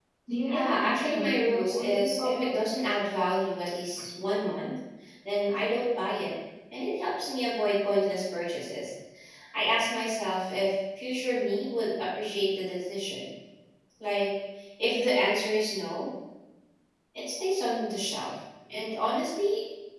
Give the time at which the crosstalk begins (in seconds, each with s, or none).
0.5 s